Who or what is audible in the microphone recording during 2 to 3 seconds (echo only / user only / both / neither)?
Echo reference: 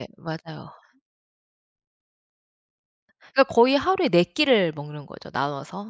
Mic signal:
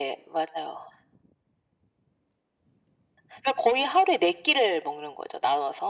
neither